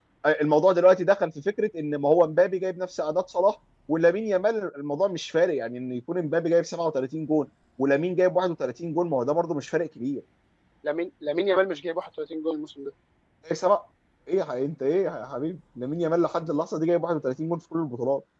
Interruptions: none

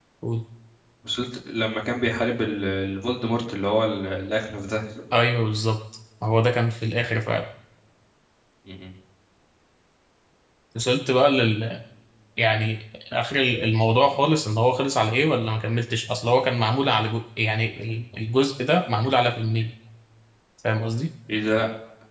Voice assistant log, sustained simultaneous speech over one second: none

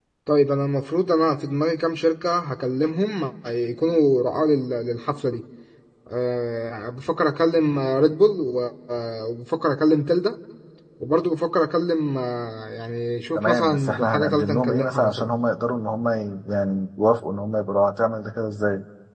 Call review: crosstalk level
present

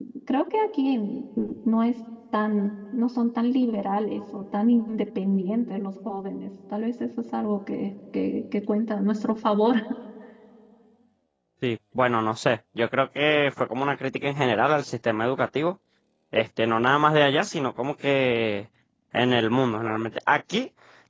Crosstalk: none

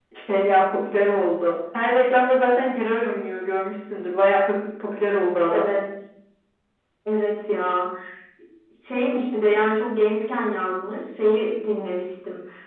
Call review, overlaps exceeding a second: none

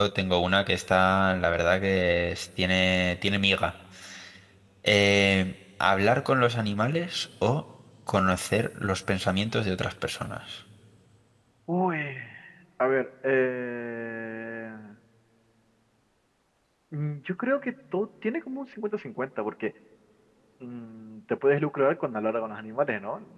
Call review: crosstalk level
none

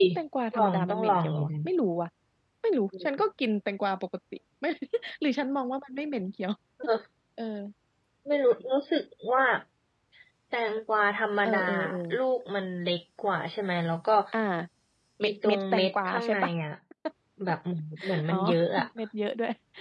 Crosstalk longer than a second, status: present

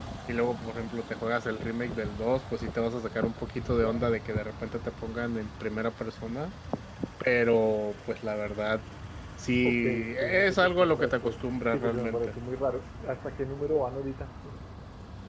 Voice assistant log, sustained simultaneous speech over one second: present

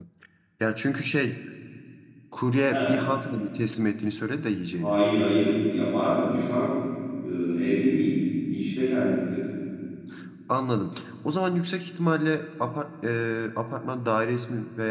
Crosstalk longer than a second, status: none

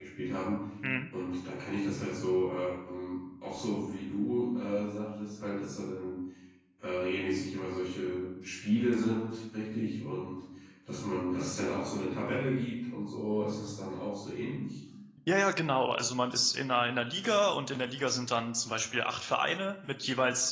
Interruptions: none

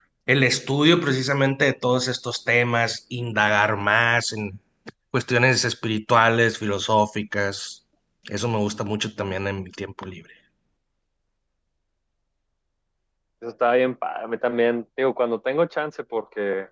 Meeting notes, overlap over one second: none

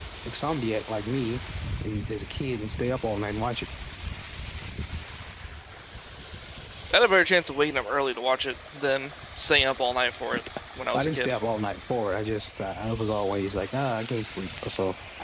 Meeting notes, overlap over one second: none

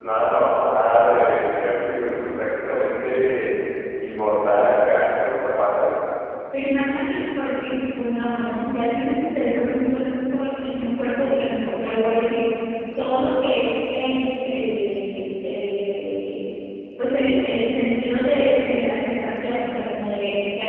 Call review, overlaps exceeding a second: none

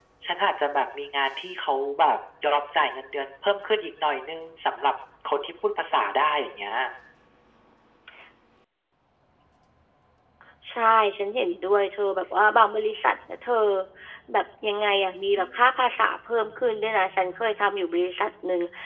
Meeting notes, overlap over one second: none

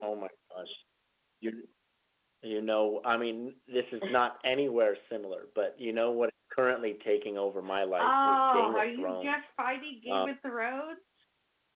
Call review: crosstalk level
present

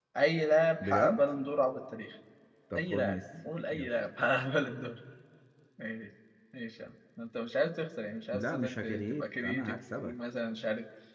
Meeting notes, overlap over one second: present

